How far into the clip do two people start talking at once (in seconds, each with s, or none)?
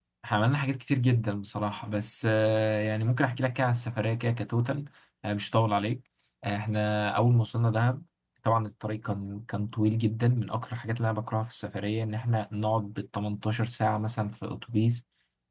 none